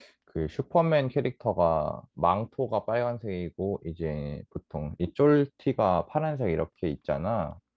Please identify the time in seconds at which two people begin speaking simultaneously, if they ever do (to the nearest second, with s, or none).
none